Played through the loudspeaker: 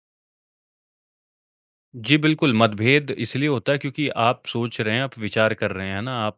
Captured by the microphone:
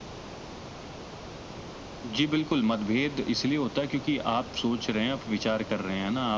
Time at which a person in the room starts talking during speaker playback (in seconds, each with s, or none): none